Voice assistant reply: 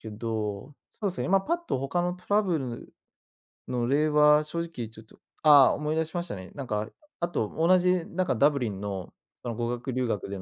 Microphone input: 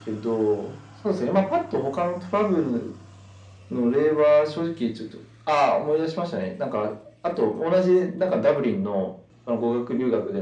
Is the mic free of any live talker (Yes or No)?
Yes